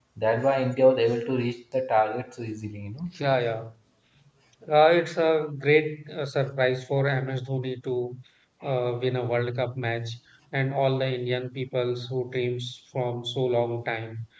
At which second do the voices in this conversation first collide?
none

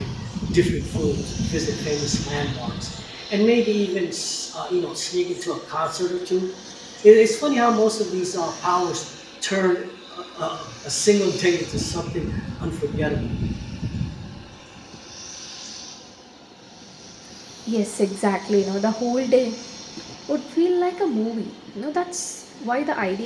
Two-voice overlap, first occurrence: none

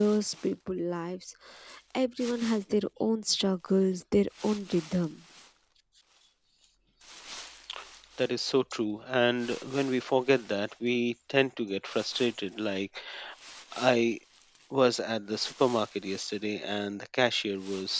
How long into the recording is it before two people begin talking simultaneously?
none

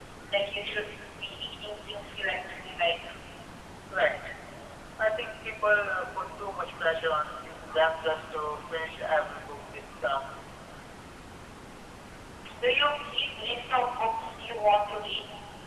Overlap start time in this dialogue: none

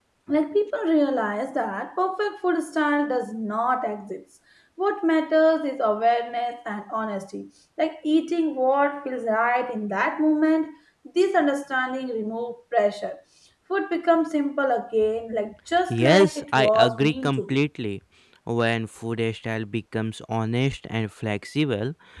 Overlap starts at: 16 s

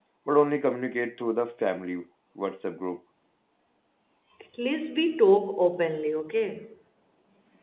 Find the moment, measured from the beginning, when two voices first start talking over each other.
none

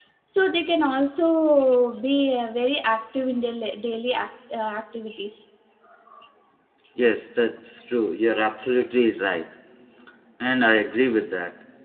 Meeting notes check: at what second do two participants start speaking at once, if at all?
none

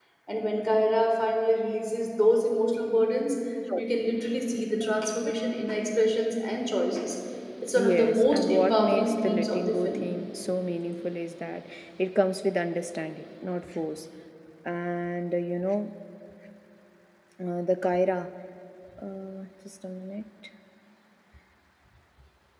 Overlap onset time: 8 s

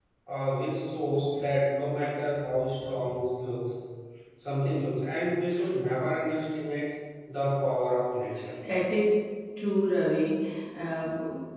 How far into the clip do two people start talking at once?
none

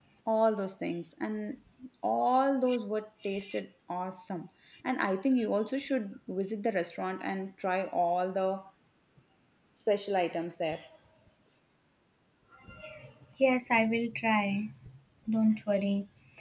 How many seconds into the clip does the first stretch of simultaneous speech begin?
none

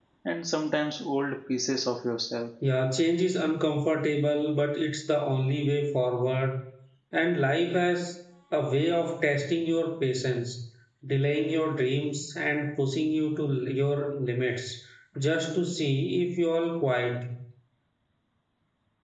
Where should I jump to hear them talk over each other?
none

